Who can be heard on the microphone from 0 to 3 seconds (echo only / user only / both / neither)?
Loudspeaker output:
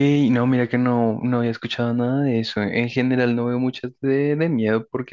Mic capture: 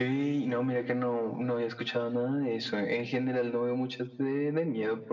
echo only